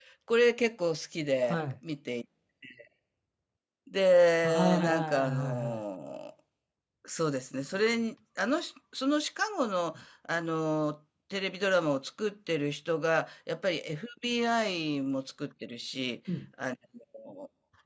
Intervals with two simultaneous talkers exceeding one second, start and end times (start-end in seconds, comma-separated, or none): 4.4-5.8